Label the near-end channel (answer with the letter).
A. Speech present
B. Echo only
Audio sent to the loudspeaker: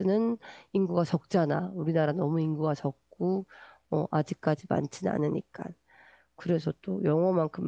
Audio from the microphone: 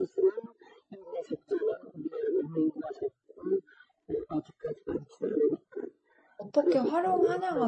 A